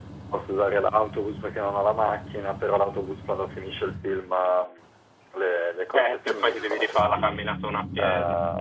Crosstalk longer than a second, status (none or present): present